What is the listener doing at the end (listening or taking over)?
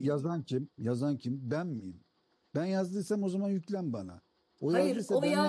taking over